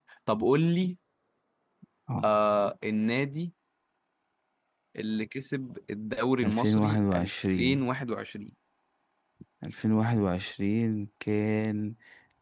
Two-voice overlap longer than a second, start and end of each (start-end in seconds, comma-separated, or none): 6.4-7.8